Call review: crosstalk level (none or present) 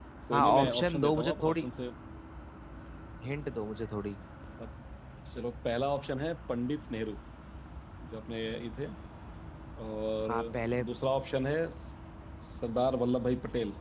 present